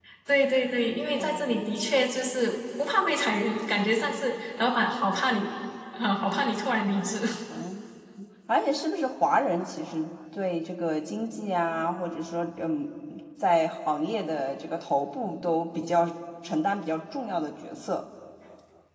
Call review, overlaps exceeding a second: none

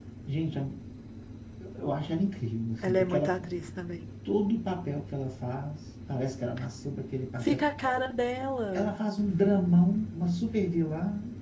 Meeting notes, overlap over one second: none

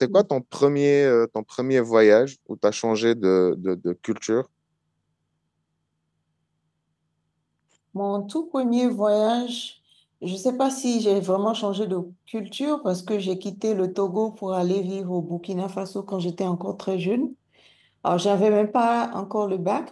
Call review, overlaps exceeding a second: none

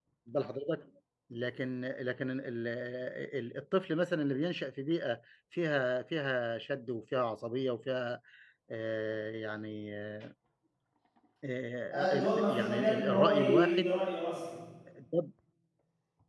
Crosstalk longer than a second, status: present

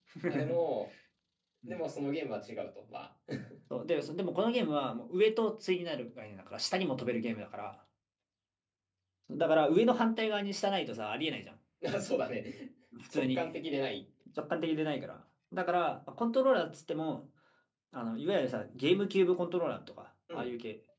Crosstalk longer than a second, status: none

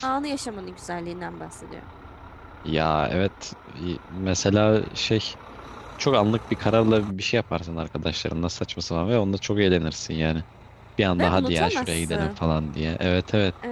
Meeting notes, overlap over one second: present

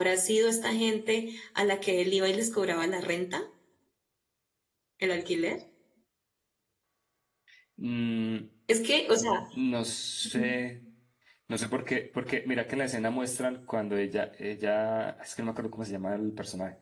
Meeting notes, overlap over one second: none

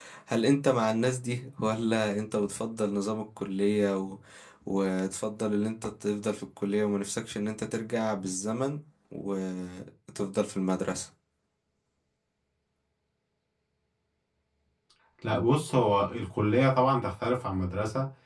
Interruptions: none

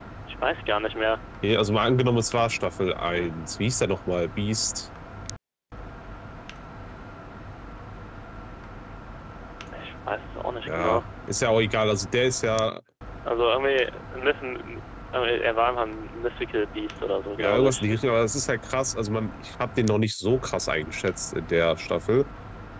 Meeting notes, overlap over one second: none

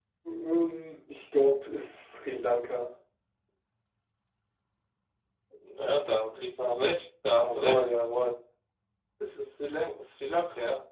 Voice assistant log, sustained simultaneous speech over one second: none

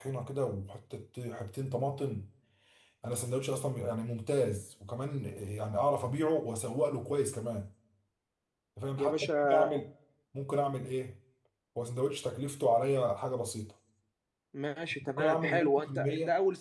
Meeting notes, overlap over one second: present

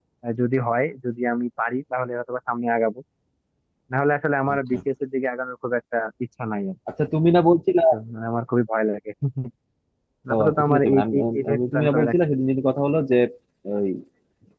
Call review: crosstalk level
present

